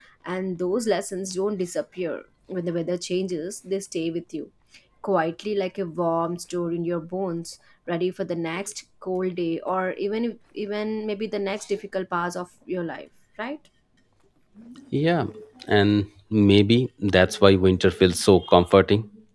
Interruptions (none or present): none